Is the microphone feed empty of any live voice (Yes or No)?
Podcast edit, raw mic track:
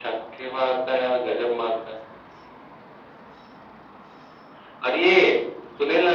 Yes